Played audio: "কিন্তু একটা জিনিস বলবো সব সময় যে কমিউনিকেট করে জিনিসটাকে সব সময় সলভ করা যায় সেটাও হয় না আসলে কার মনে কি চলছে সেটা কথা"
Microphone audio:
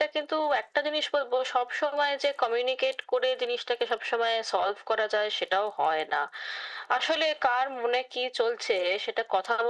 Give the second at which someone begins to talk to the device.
none

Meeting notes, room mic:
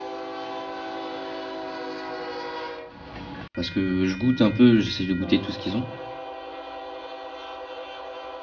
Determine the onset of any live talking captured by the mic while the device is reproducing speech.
3.6 s

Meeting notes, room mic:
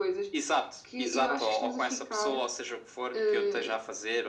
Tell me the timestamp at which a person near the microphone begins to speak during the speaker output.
none

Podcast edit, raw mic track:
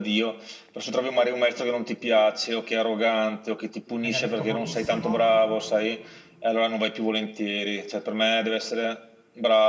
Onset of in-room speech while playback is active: 4.0 s

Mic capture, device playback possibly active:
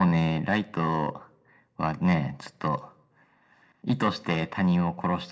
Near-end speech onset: none

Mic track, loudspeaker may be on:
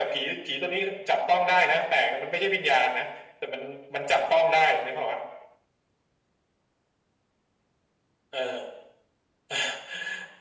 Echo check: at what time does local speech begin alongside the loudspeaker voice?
none

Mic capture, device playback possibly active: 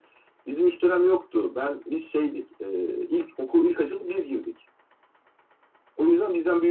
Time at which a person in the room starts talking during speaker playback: none

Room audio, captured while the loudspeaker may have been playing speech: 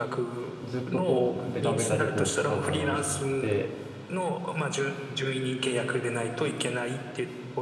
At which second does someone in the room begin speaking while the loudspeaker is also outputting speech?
0.6 s

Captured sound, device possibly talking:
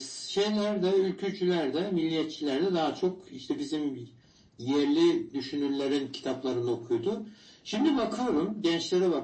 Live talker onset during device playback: none

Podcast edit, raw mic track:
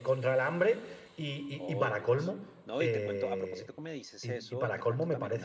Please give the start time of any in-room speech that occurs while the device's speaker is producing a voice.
1.6 s

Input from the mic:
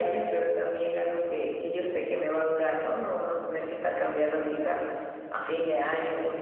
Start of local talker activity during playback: none

